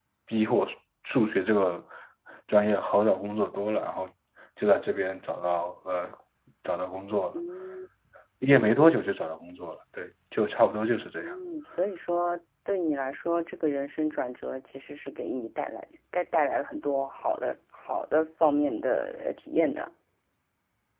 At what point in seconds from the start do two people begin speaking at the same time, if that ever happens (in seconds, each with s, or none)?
none